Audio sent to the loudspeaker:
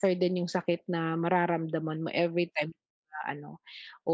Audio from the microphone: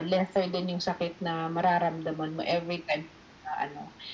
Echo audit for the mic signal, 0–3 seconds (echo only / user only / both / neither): echo only